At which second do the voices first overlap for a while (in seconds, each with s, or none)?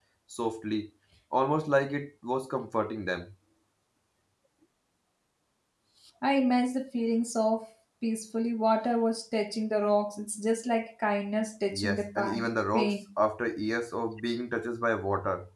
11.7 s